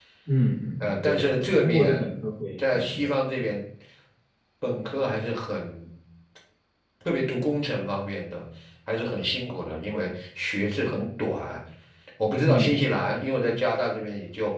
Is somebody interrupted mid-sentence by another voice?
Yes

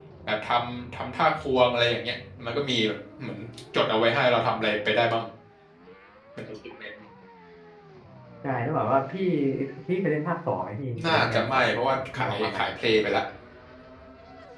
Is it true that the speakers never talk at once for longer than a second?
No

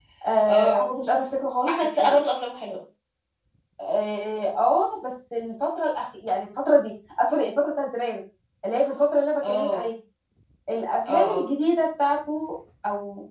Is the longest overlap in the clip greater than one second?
No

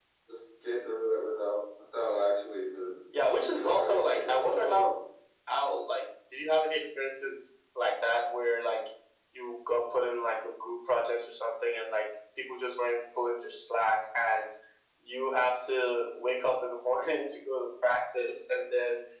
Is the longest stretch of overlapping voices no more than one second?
No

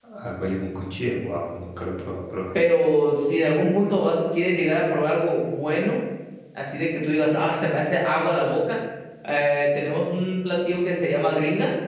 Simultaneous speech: No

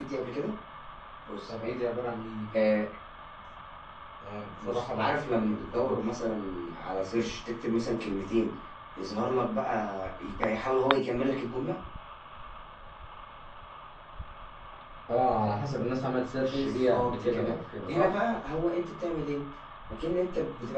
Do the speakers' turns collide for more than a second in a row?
Yes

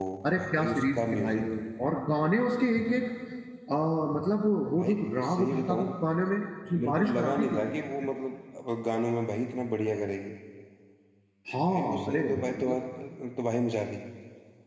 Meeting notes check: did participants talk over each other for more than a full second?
Yes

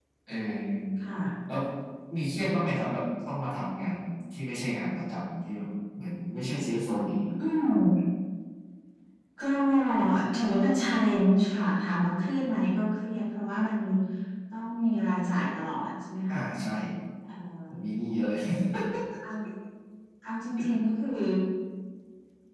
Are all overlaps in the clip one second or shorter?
Yes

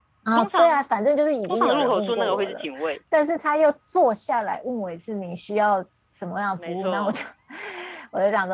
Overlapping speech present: Yes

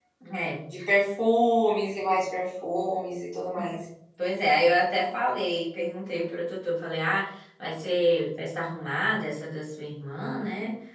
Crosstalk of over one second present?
No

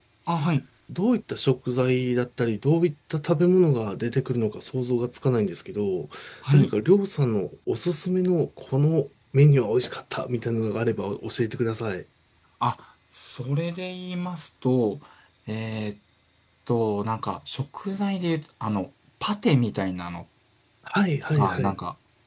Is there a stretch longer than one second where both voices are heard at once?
No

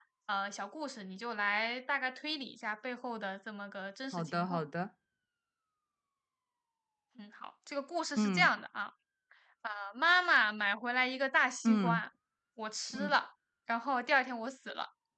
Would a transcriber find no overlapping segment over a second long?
Yes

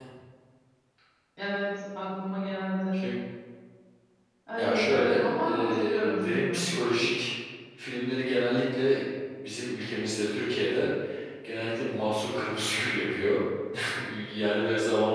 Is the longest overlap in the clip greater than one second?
Yes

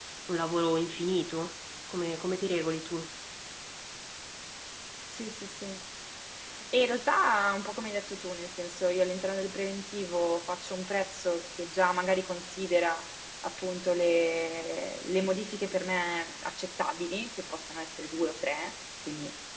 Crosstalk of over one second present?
No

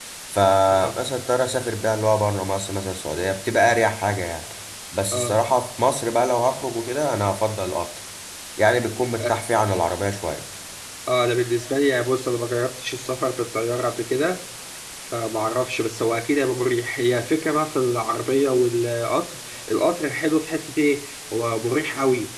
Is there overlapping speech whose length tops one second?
No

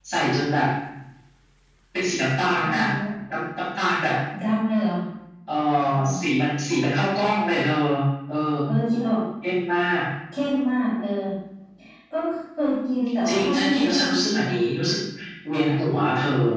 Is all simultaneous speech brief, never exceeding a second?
No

